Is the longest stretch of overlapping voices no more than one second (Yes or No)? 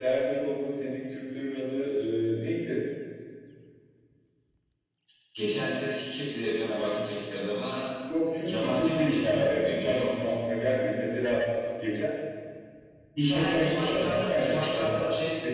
No